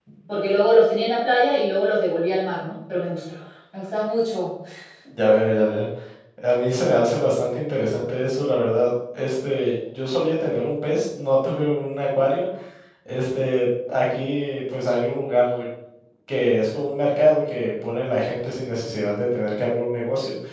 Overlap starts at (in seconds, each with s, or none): none